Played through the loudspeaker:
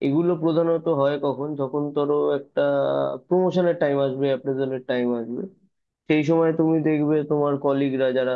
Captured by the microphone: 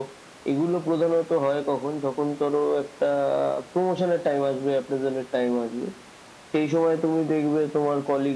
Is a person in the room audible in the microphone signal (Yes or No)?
No